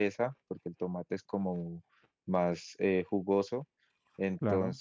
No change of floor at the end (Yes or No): Yes